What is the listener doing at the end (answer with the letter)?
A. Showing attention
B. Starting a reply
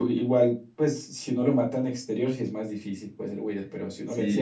B